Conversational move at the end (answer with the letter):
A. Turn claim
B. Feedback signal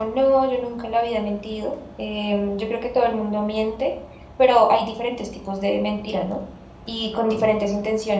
B